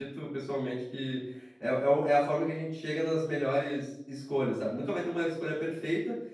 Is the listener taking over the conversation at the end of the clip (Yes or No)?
No